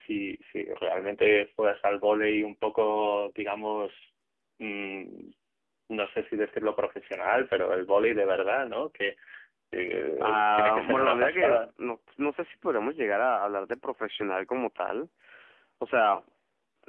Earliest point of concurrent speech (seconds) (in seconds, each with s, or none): 10.2 s